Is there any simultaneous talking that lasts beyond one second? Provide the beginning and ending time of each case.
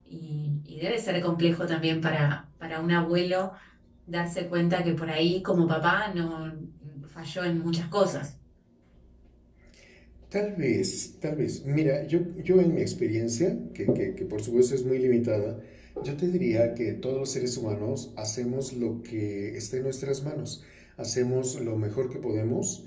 none

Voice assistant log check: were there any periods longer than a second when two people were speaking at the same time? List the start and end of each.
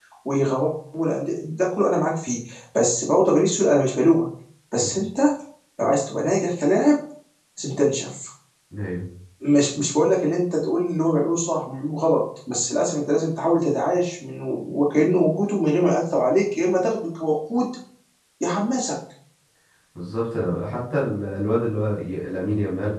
none

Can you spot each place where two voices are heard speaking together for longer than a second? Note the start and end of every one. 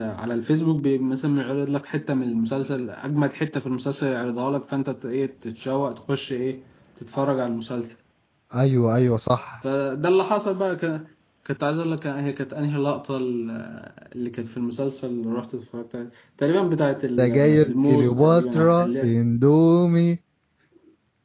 17.2-19.2

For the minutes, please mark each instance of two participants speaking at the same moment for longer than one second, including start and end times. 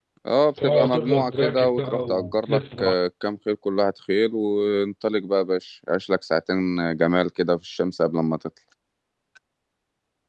0.6-2.9

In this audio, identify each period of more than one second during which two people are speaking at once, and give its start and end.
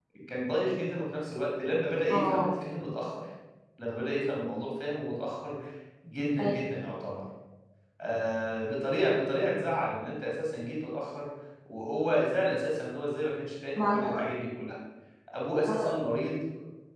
none

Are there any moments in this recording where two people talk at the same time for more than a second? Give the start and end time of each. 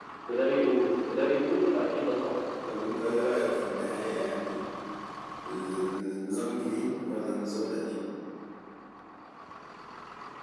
none

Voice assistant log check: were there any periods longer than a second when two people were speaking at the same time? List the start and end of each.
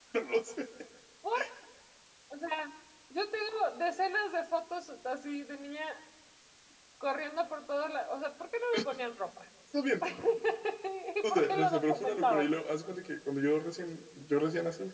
11.2-12.5

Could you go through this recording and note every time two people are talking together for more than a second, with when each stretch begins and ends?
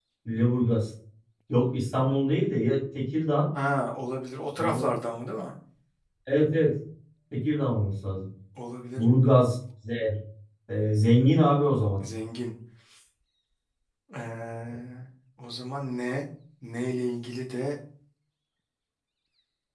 none

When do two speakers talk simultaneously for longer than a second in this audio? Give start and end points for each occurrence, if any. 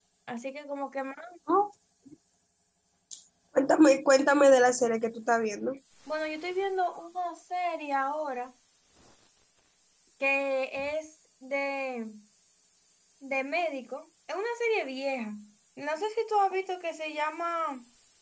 none

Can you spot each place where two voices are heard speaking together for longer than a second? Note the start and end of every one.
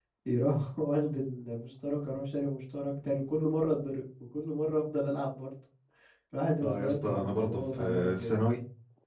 6.6-8.3

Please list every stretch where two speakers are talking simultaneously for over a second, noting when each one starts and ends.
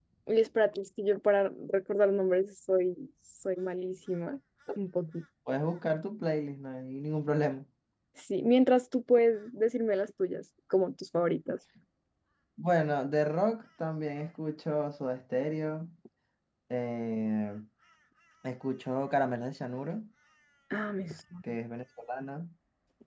none

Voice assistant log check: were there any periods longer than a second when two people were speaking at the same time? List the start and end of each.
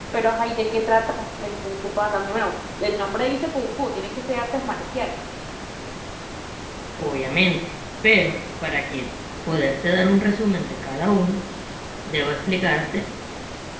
none

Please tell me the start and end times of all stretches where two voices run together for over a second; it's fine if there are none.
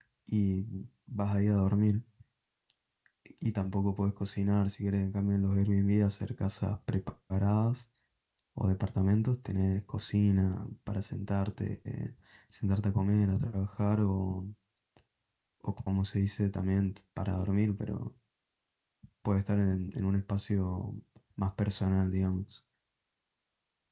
none

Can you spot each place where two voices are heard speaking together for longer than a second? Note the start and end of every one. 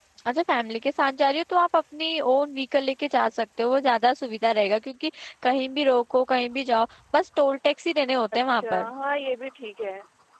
none

